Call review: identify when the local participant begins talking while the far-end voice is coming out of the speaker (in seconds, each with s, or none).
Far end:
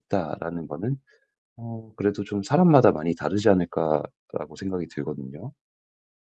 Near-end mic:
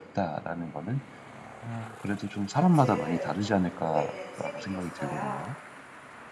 2.5 s